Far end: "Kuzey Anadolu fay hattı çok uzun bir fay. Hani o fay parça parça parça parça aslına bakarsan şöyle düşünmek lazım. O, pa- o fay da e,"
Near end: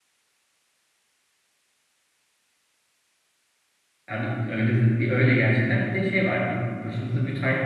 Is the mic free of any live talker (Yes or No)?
No